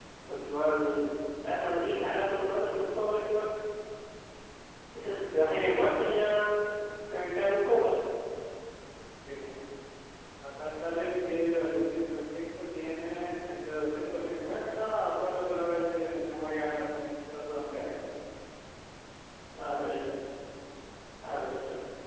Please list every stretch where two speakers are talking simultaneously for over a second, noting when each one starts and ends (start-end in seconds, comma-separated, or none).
none